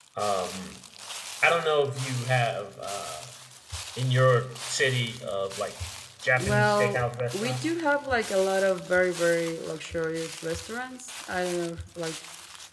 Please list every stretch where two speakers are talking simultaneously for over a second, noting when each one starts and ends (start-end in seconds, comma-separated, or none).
6.3-7.7